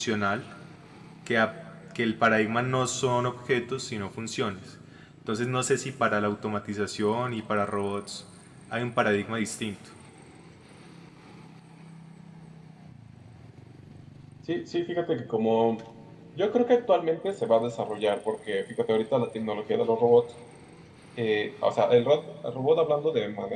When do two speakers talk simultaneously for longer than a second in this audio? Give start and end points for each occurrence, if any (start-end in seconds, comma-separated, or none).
none